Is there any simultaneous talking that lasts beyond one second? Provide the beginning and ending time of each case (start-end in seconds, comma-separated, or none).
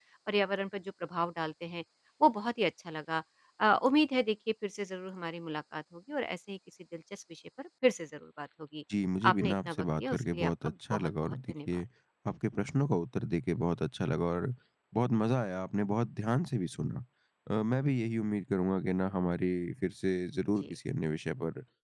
9.3-11.8